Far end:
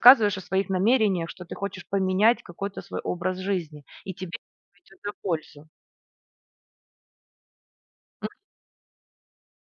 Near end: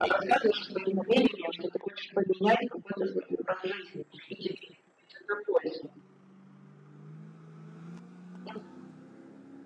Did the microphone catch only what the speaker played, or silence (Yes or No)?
Yes